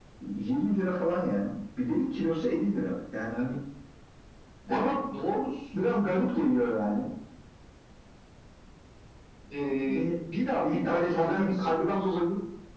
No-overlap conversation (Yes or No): No